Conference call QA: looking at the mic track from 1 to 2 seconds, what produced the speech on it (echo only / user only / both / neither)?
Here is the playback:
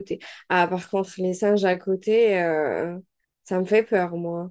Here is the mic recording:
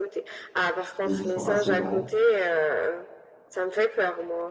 both